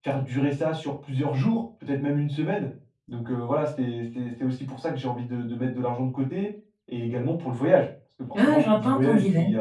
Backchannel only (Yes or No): No